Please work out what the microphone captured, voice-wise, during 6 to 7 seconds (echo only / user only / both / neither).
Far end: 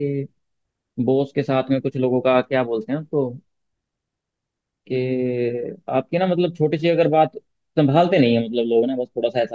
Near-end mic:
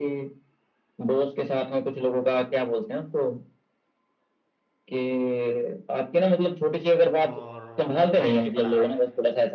echo only